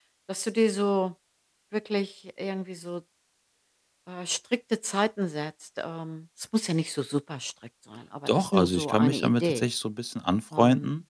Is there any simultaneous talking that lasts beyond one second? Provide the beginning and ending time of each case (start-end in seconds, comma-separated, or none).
8.3-9.6